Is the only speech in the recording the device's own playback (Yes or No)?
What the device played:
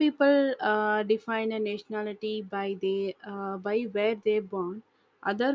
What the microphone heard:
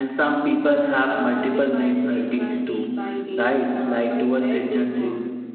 No